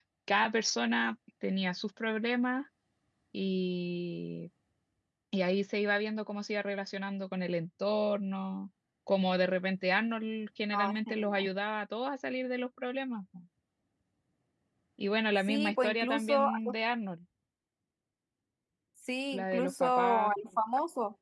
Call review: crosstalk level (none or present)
present